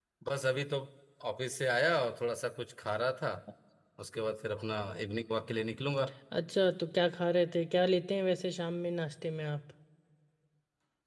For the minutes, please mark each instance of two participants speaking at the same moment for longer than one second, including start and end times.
none

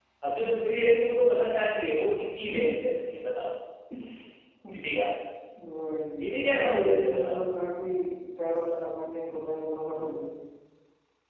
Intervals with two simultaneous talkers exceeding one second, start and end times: 6.2-7.4

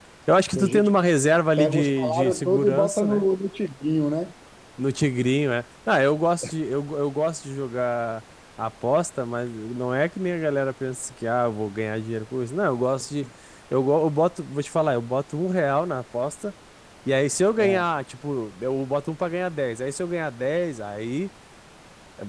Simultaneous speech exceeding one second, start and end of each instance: 1.6-3.2

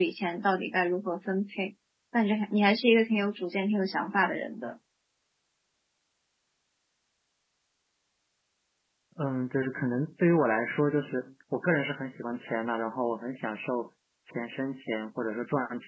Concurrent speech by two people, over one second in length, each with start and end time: none

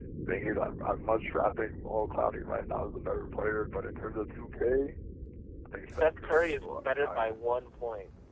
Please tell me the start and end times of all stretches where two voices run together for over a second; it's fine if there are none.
6.0-7.3

